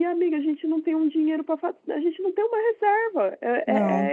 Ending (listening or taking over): listening